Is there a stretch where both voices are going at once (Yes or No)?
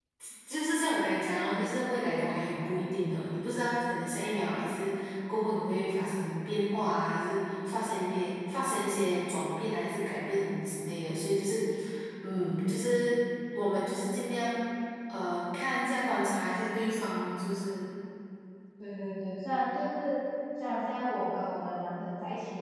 No